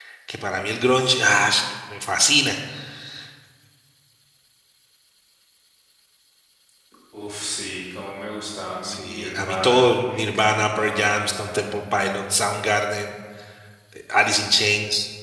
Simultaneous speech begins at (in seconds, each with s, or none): 8.8 s